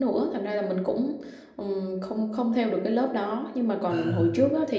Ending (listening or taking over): listening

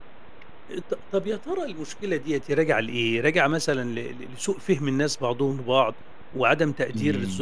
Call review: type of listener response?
listening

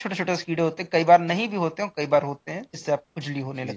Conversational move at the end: taking over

